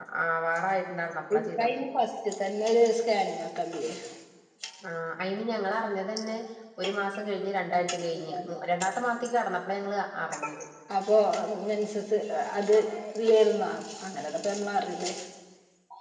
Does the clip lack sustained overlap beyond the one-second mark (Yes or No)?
Yes